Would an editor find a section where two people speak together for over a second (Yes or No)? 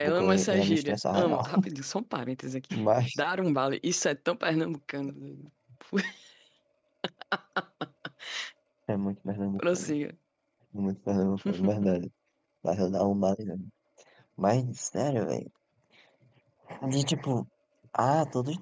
Yes